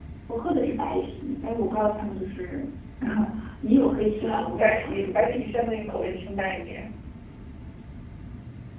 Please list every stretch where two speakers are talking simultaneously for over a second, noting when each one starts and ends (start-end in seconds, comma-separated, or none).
4.2-5.5